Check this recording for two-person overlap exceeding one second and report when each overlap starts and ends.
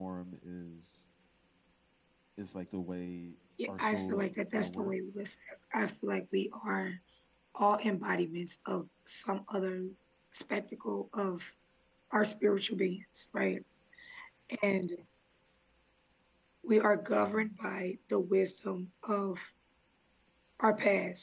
3.7-4.9

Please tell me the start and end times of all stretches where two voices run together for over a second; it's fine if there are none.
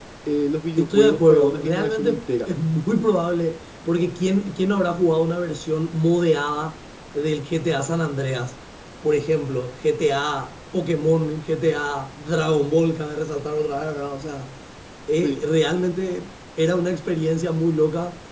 0.8-2.5

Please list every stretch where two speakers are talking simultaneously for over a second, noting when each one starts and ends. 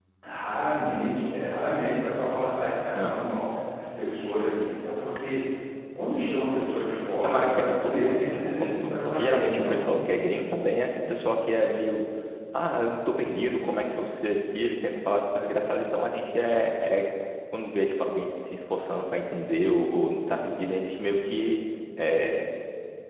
7.2-9.8

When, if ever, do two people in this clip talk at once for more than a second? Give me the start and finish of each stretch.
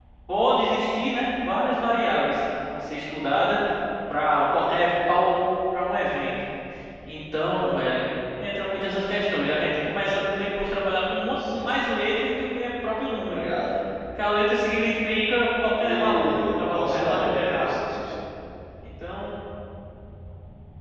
15.8-17.8

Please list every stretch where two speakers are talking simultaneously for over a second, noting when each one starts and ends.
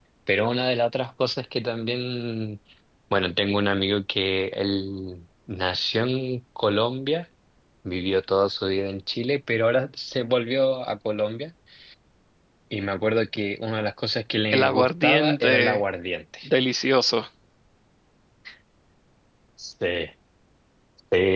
14.5-15.8

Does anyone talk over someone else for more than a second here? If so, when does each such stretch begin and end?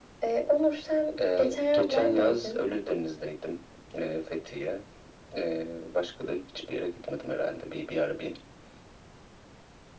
1.4-2.6

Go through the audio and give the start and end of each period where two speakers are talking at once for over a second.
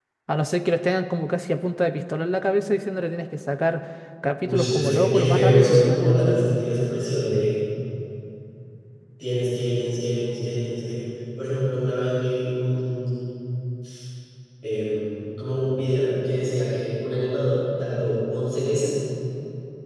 4.4-6.1

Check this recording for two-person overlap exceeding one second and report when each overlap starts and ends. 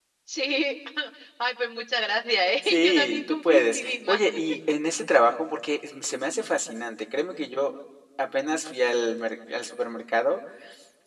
2.6-4.2

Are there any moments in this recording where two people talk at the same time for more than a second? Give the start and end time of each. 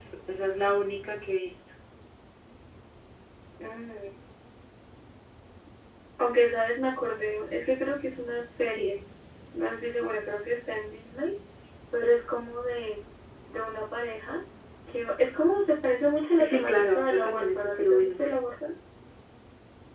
16.4-18.2

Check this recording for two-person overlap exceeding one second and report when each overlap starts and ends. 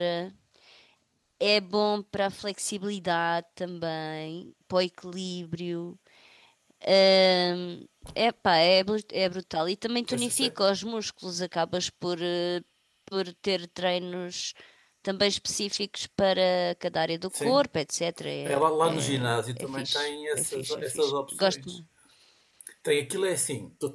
18.4-21.8

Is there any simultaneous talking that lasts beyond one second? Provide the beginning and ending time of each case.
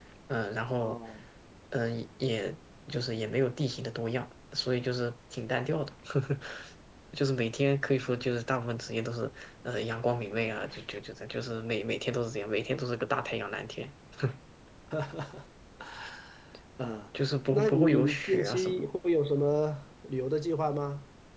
17.5-18.9

